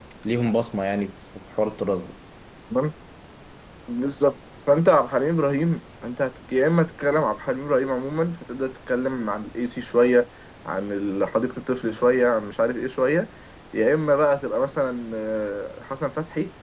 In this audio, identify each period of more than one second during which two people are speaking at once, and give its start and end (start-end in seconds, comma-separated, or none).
none